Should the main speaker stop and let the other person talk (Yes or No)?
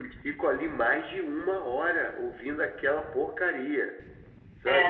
Yes